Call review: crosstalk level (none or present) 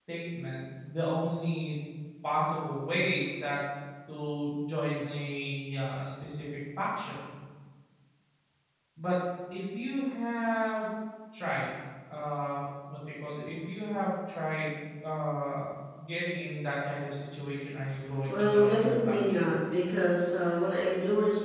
present